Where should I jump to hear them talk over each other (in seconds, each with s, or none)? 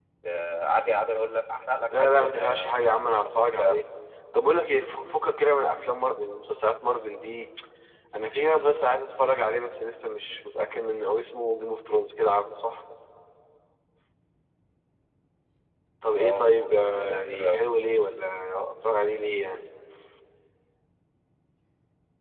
1.9 s